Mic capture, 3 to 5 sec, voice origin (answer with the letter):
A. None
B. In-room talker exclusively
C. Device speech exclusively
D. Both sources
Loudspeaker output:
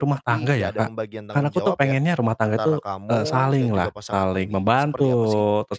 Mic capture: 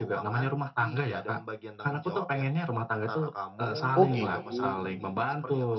D